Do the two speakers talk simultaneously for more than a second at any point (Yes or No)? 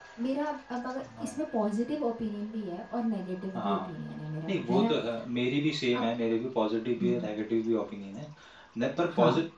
No